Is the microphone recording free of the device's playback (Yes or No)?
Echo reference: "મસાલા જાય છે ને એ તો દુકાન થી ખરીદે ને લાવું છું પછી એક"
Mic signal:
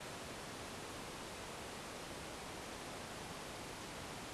Yes